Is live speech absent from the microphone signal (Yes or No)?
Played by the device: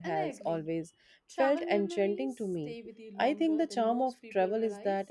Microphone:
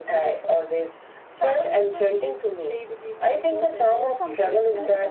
No